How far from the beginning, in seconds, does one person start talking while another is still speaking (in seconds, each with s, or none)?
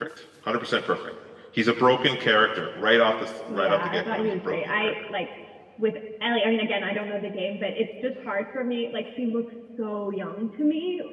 3.5 s